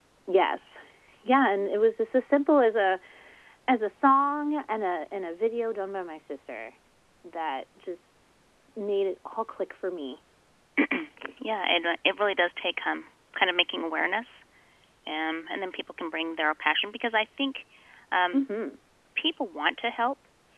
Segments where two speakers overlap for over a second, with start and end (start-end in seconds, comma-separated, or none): none